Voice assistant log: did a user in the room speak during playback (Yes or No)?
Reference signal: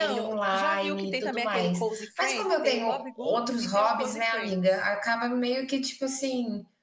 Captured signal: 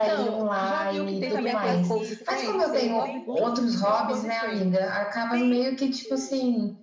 Yes